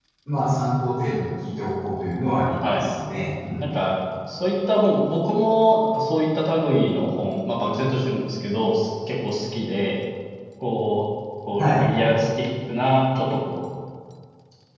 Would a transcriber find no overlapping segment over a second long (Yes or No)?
Yes